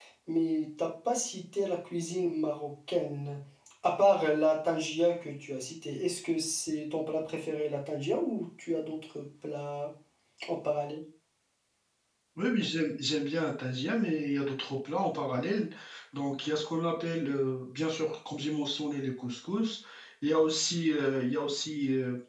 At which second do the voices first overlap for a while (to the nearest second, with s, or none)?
none